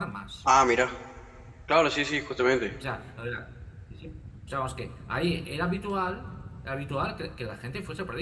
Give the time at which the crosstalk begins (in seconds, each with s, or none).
none